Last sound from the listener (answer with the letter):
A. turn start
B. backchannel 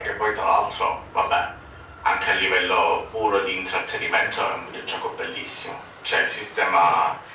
B